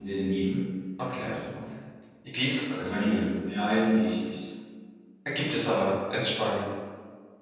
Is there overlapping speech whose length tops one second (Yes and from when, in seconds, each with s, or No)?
No